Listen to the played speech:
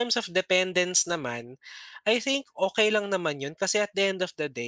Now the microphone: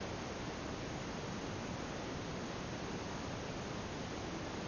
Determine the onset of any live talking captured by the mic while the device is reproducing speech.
none

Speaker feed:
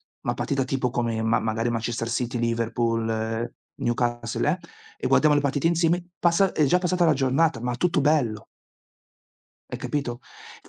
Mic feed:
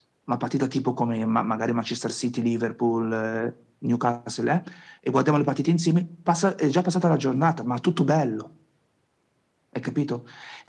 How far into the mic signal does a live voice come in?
none

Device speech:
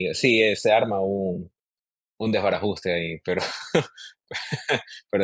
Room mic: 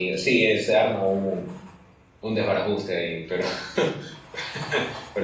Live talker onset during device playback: none

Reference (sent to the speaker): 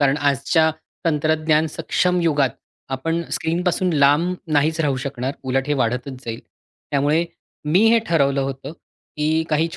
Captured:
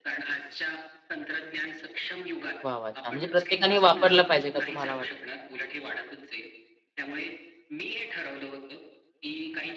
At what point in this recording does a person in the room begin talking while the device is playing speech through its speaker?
2.7 s

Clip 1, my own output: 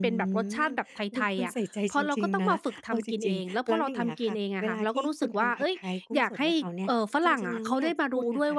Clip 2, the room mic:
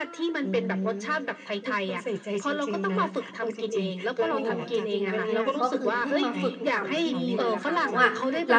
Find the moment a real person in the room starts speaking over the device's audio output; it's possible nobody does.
4.3 s

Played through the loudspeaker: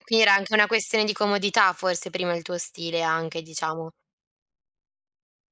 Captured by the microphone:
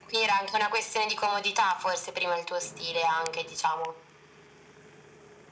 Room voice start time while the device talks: none

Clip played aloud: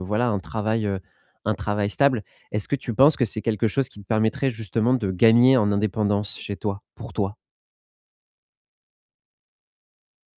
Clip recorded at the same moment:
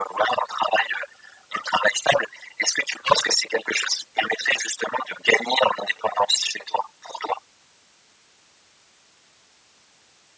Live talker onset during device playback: none

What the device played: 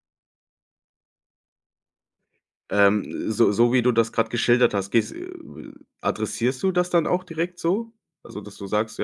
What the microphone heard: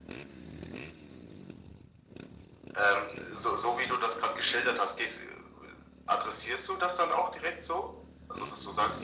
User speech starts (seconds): none

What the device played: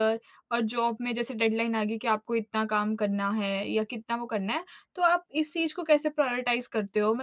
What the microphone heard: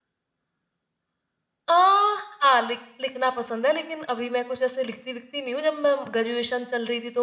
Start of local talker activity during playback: 1.7 s

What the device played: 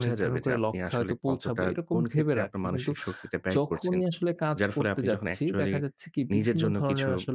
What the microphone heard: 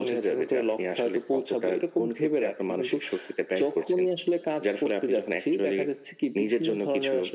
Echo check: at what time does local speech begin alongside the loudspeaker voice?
none

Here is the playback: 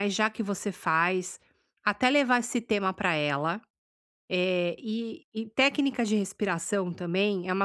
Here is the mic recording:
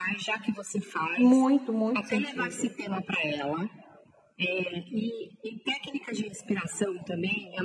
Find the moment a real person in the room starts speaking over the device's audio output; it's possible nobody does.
1.1 s

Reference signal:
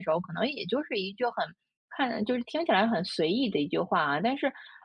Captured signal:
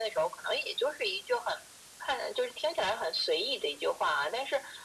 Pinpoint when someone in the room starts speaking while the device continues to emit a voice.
none

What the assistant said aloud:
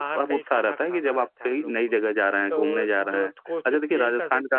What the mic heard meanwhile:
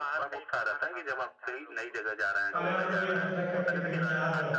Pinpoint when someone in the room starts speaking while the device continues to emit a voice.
2.6 s

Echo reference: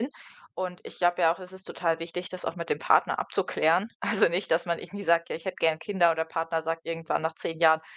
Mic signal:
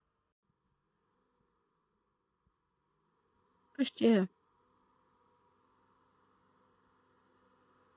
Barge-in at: 3.8 s

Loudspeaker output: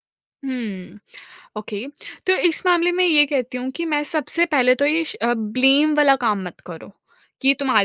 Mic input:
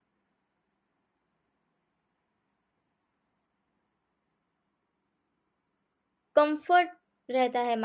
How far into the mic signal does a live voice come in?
6.4 s

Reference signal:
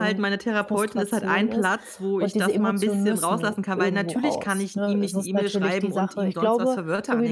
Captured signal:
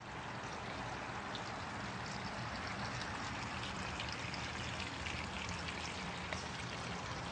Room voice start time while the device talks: none

